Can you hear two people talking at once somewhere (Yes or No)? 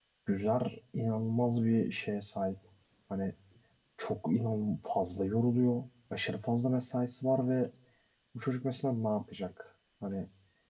No